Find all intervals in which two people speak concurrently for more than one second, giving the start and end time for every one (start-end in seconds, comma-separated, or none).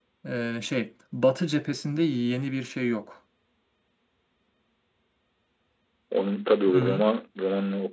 none